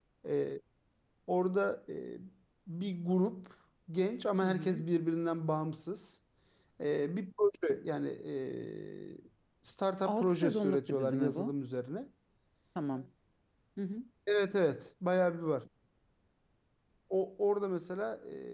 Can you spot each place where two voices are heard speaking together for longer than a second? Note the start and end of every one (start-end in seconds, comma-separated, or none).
10.1-11.6